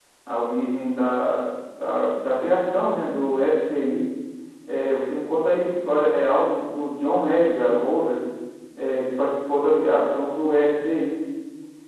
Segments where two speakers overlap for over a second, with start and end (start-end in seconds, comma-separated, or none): none